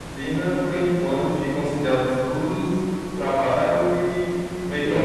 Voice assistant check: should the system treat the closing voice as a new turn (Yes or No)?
No